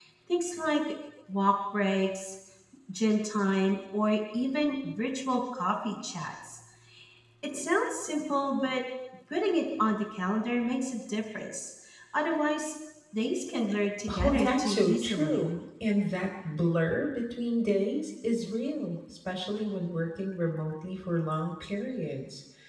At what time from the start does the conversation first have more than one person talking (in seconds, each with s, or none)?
14.1 s